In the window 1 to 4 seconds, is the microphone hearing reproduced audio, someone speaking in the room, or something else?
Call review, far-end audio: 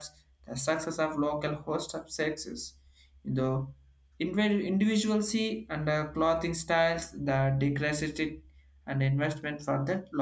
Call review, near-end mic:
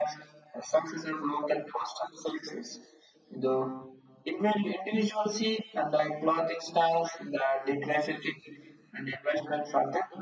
echo only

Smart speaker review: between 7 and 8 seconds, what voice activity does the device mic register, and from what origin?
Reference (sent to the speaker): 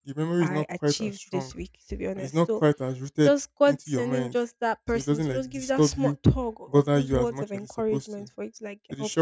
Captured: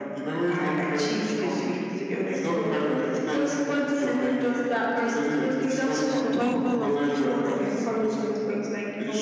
both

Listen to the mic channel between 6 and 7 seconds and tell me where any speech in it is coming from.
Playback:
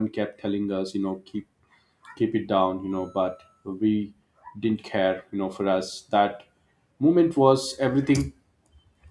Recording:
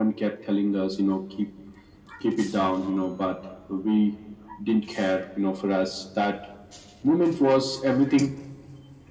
echo only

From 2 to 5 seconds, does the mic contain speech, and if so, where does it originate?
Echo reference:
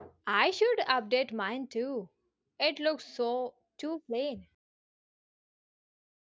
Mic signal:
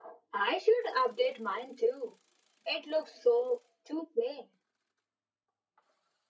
echo only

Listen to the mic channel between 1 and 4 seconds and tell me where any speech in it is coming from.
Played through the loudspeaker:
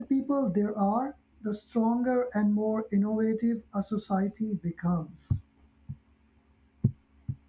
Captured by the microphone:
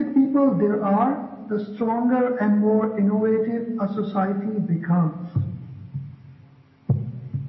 echo only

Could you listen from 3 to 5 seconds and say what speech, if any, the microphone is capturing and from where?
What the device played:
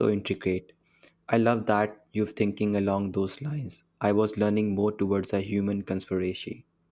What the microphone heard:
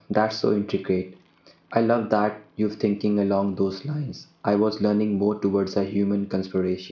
echo only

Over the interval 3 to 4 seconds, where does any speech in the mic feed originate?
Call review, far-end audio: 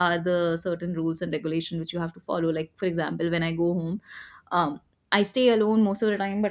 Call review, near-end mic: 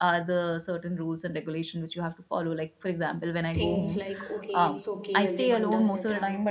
both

